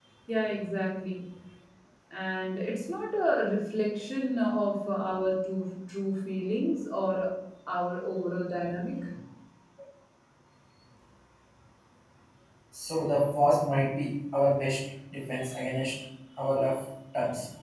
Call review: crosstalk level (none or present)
none